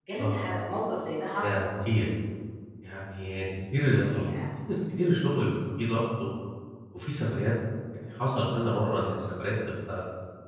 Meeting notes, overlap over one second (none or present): none